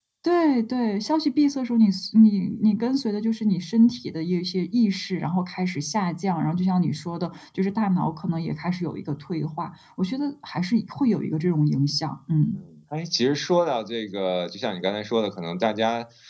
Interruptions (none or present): none